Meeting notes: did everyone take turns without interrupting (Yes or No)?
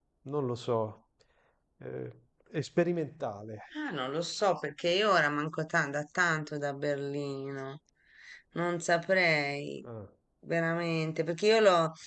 Yes